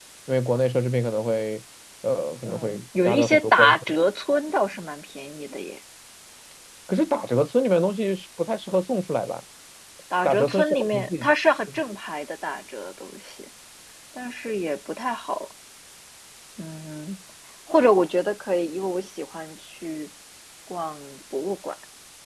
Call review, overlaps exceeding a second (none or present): present